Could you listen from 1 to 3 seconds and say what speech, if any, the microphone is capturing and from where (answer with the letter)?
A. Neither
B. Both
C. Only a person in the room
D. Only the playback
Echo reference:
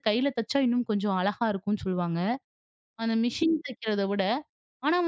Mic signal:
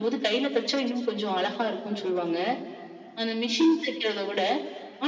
D